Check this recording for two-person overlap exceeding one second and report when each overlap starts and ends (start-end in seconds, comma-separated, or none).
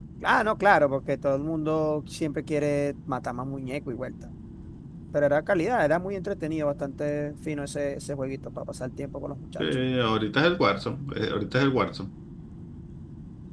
none